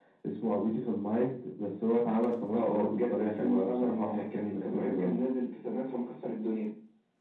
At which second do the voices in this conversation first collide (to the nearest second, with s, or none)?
3 s